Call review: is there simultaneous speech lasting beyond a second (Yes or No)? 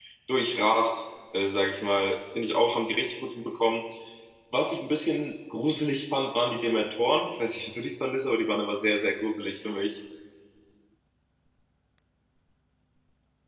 No